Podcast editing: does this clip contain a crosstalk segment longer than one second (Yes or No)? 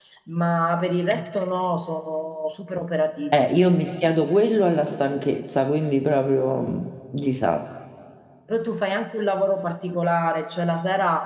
No